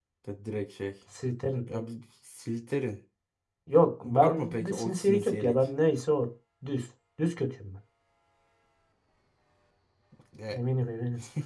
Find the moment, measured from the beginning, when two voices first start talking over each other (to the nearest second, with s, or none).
4 s